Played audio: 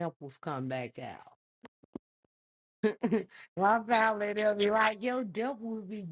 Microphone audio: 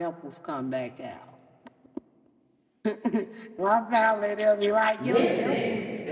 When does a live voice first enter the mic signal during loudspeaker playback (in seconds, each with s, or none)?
5.0 s